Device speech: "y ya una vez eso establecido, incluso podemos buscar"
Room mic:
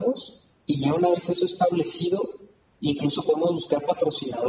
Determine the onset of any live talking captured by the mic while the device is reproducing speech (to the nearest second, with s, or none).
none